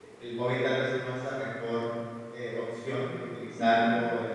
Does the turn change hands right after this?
No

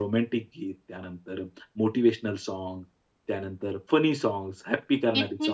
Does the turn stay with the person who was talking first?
No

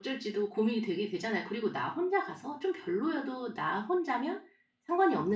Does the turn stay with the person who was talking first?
Yes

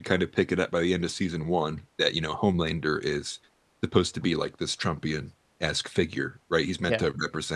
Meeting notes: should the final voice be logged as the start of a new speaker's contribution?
No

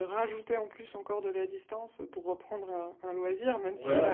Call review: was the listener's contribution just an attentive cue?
No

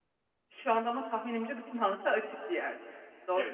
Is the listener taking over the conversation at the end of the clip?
Yes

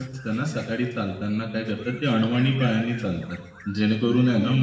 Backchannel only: Yes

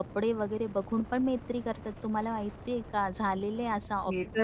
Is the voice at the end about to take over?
Yes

